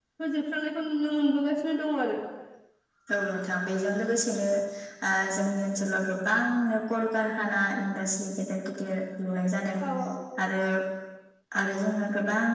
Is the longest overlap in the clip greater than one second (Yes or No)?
No